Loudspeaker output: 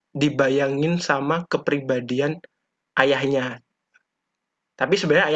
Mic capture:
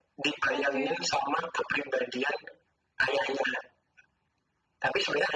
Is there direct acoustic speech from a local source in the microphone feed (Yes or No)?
Yes